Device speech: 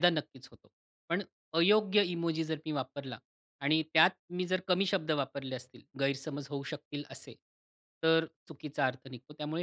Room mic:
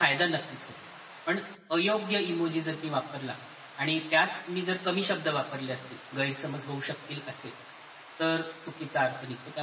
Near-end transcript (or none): none